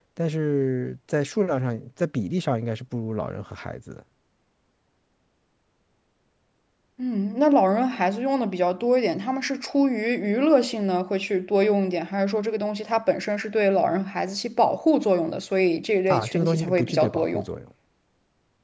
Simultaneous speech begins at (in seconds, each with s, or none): 16.1 s